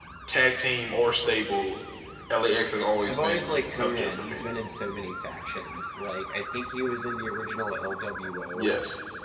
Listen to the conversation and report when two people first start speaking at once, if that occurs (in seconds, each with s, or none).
3.1 s